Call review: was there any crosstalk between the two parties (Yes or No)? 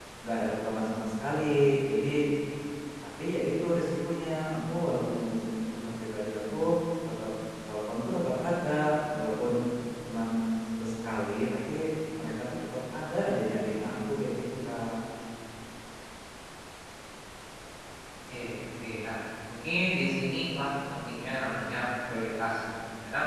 No